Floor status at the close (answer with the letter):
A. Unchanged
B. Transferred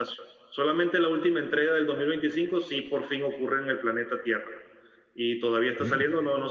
A